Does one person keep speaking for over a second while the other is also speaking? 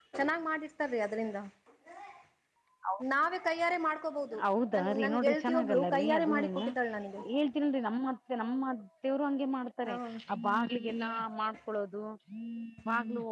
Yes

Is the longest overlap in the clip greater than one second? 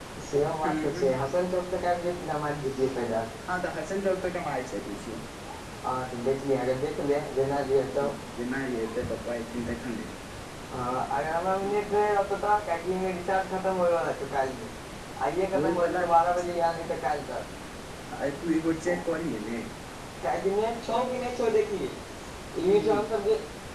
No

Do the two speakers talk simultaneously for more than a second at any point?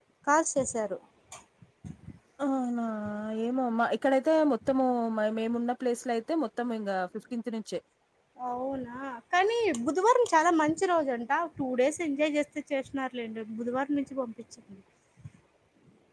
No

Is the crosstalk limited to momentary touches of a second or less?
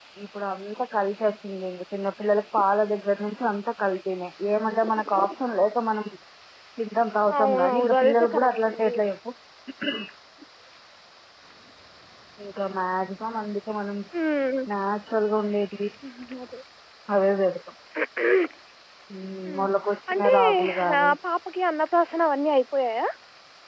No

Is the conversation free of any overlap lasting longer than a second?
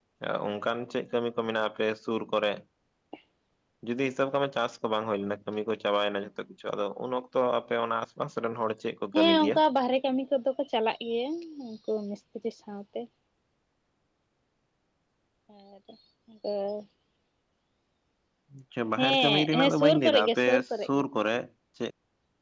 No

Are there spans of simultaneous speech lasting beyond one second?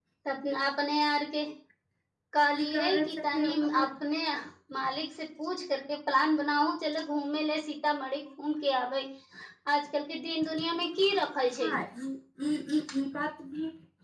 Yes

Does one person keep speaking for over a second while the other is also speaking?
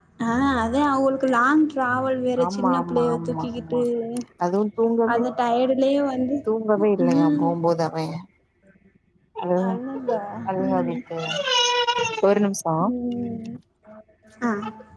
Yes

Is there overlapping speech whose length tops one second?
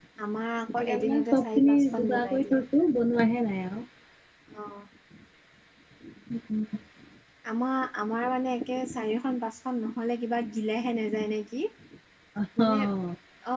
Yes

